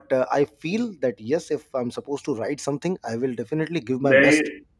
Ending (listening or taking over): taking over